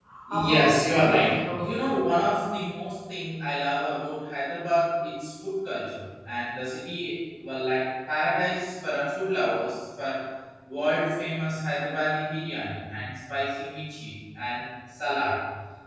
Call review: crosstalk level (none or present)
present